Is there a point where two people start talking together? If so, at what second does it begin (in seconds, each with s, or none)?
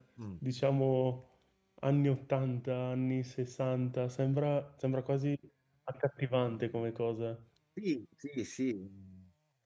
none